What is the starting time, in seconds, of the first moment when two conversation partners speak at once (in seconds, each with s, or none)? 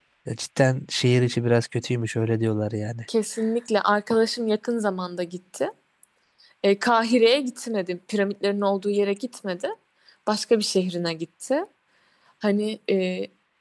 none